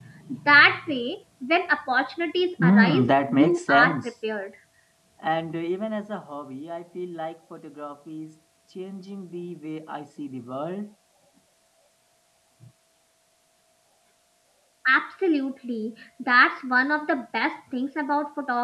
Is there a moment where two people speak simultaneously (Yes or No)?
Yes